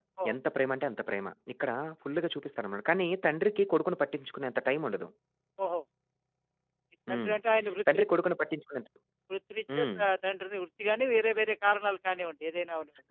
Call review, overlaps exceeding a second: none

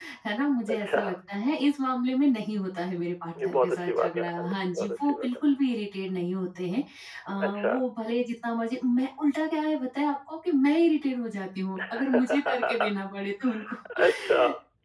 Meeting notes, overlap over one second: present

